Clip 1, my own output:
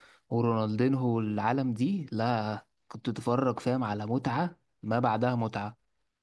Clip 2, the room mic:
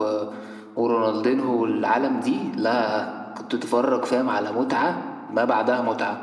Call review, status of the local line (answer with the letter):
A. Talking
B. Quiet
B